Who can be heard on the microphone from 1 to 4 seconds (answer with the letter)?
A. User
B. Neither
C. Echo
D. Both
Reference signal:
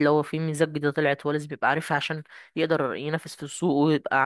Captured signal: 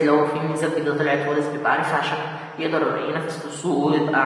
C